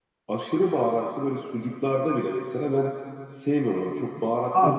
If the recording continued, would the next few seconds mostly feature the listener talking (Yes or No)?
Yes